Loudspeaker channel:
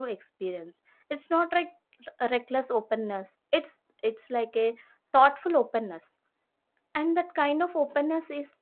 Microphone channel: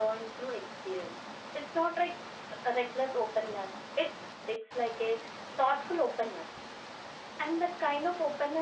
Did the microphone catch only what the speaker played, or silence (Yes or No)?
Yes